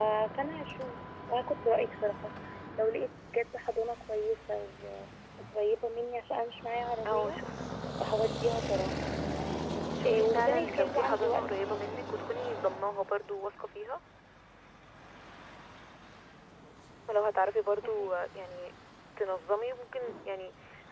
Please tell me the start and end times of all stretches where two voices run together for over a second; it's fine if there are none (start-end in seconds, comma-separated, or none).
10.0-12.0